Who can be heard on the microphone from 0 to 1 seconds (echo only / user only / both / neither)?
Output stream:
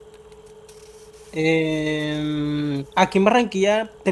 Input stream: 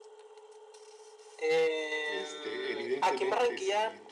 neither